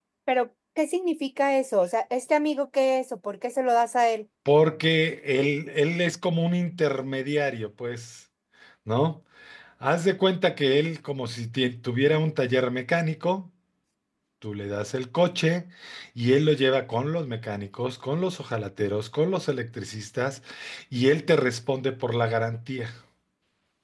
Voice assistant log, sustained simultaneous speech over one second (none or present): none